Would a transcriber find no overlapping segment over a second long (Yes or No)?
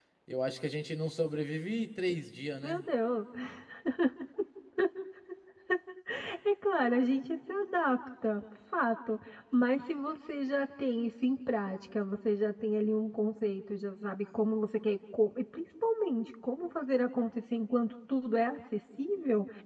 Yes